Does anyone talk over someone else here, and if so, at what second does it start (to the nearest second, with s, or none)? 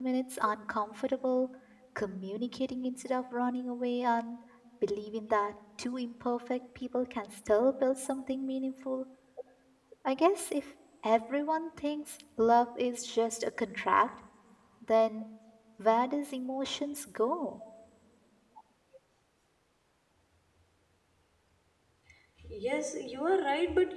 none